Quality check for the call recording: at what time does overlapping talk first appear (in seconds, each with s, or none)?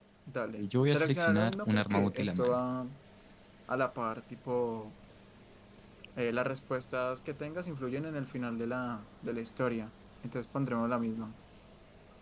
0.6 s